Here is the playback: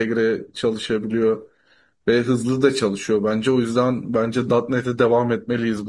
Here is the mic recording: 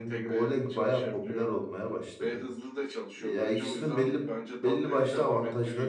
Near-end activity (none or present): present